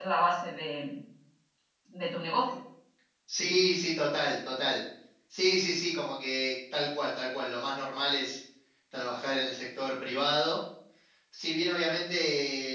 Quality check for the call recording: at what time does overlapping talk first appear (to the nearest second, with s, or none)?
none